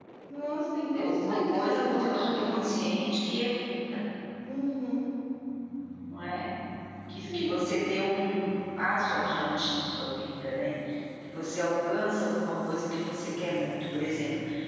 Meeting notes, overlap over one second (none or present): present